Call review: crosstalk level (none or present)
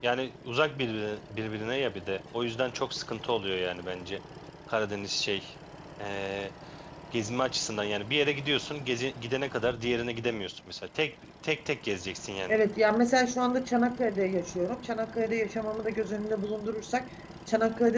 none